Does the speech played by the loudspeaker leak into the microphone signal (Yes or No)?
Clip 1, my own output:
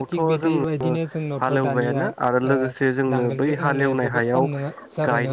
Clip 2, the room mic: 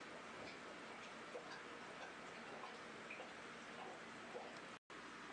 No